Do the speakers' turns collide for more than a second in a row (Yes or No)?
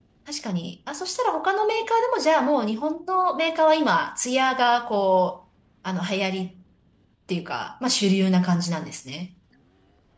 No